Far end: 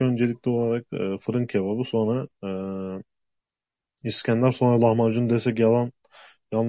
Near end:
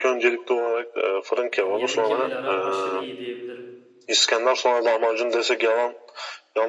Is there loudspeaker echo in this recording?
Yes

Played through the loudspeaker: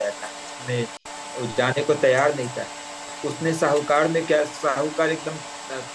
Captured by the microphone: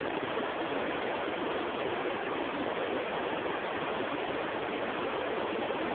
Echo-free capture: Yes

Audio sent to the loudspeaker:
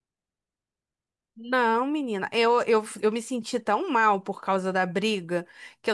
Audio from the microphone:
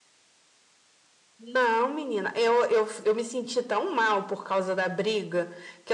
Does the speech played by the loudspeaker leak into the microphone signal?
Yes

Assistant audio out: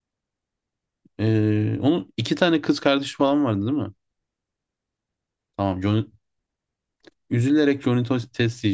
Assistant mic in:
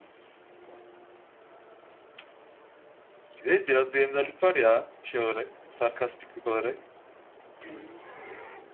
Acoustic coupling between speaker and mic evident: No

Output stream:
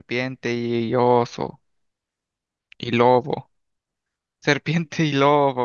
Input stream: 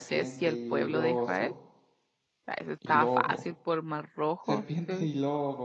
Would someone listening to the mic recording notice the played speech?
Yes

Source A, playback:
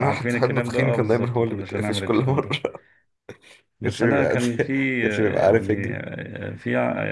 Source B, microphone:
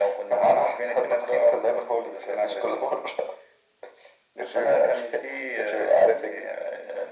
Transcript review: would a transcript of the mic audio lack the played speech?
No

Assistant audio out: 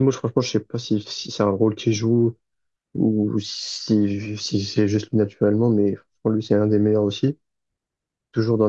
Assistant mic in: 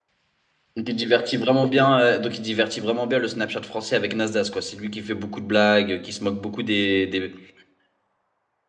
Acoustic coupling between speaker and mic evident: No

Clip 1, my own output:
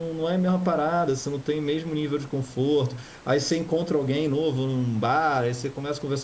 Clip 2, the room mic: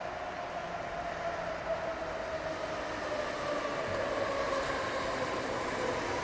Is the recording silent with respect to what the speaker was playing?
Yes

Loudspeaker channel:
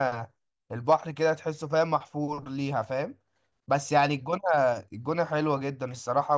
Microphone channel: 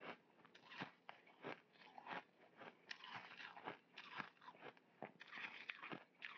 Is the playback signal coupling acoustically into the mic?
No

